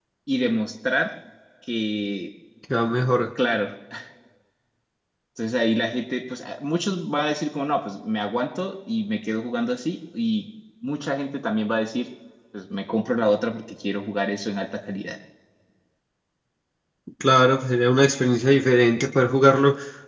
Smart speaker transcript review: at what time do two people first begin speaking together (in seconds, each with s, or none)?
none